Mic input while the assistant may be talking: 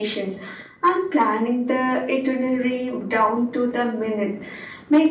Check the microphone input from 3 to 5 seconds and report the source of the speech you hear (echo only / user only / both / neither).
echo only